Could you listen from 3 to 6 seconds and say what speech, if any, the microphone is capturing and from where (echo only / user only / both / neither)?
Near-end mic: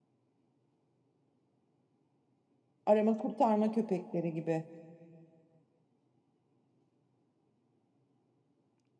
user only